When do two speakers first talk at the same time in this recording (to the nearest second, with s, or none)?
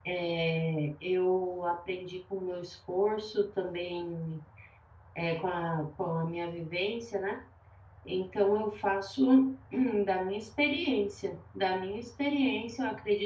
none